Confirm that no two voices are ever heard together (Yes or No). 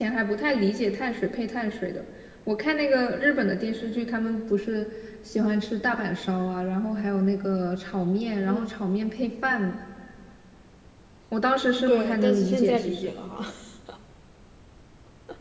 No